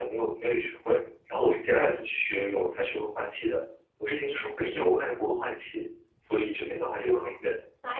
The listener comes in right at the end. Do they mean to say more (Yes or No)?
Yes